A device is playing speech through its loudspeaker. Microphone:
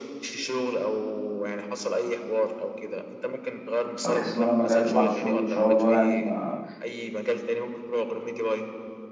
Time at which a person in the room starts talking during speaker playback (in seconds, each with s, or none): 4.0 s